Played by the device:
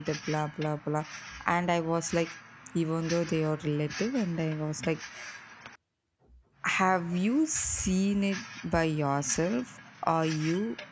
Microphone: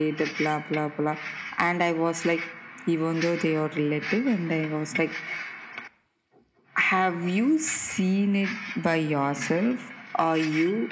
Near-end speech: none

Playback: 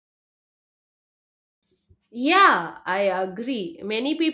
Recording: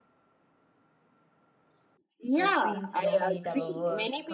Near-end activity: present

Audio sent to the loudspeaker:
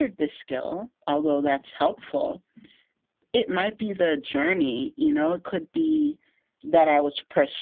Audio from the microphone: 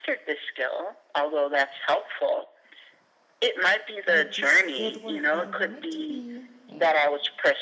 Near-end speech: present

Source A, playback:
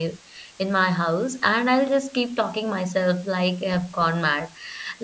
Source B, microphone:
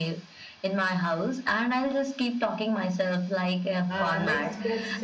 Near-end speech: present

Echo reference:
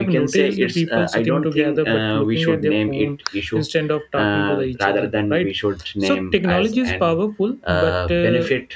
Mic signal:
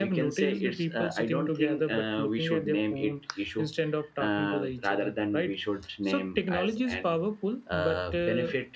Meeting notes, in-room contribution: none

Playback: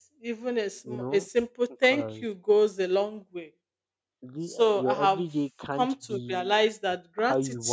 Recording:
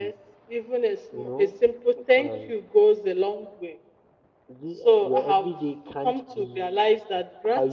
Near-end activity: none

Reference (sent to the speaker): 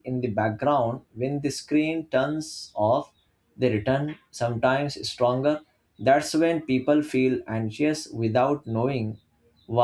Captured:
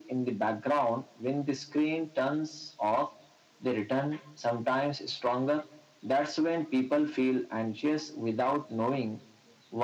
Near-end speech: none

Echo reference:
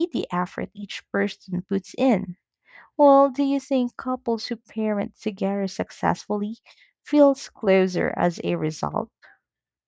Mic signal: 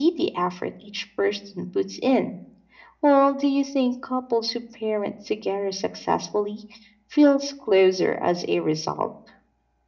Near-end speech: none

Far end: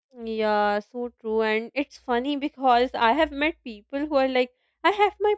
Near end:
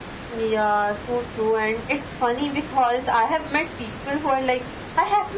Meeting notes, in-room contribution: none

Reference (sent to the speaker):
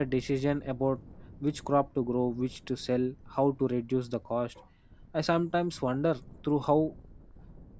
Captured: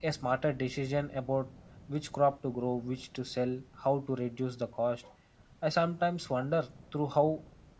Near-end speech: none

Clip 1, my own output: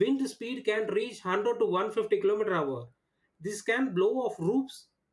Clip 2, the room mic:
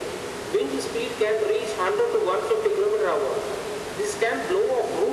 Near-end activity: none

